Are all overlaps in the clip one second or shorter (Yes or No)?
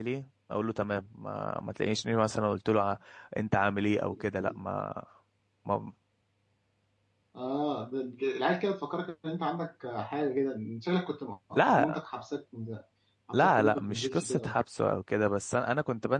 No